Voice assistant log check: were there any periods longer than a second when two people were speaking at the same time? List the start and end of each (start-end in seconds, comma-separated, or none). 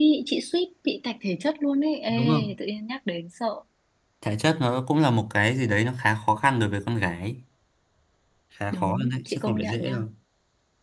8.7-10.0